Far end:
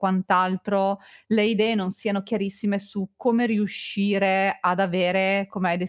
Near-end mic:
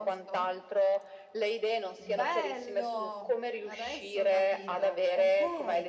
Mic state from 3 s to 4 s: both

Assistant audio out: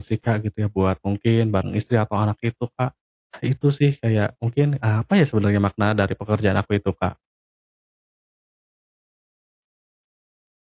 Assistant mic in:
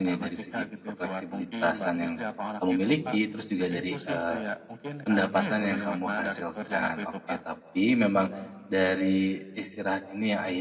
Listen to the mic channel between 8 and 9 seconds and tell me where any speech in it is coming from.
user only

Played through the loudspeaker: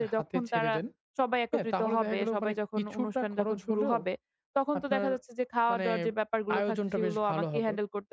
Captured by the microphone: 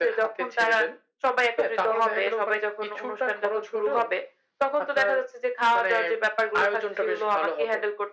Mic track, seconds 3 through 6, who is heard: echo only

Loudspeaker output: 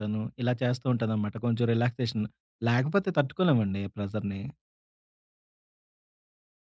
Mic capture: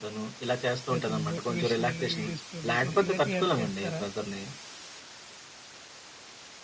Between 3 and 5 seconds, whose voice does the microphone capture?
both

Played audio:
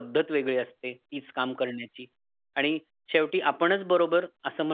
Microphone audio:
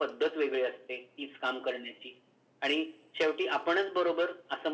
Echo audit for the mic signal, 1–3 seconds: echo only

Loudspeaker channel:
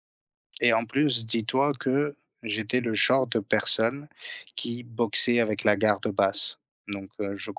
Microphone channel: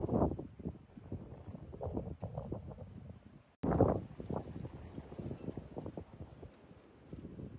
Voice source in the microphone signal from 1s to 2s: neither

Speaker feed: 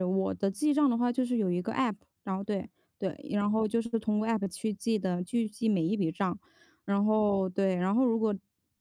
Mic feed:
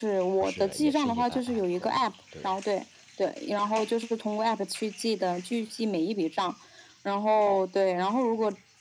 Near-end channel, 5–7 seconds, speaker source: echo only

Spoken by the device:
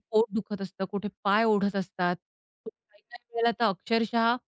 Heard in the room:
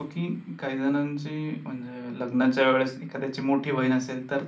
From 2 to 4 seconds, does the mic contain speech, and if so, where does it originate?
user only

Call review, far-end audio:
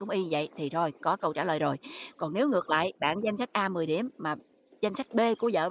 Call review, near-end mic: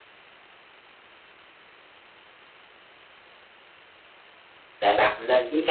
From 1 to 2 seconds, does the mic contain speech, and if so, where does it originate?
neither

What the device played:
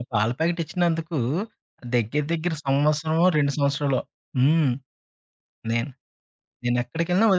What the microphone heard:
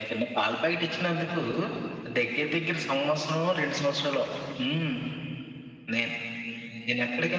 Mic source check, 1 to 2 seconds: echo only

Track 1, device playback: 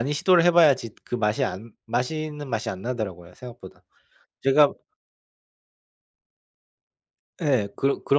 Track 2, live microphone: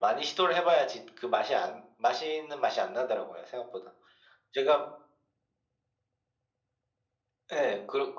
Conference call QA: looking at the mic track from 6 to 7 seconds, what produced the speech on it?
neither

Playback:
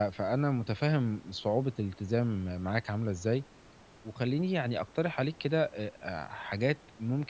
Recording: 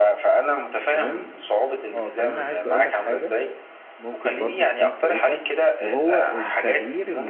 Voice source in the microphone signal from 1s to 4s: both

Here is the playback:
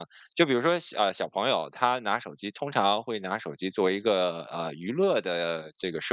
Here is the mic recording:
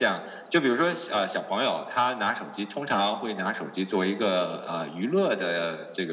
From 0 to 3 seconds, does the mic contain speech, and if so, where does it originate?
echo only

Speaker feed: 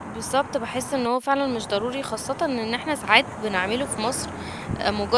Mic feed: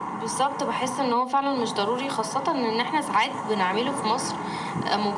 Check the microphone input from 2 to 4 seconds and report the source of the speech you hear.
echo only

